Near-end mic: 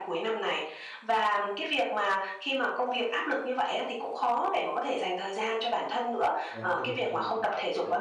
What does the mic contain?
both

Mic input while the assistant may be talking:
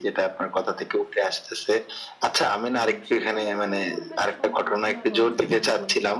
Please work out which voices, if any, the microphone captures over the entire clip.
both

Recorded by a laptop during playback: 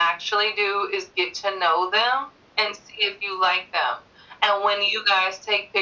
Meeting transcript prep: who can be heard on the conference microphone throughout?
echo only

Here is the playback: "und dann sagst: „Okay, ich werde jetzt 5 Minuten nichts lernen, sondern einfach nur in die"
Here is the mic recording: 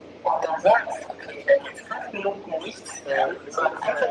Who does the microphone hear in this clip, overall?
both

